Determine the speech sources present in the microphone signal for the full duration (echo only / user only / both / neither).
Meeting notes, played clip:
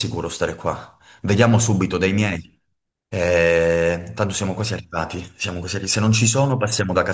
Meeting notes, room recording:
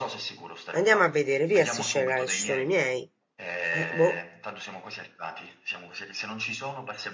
both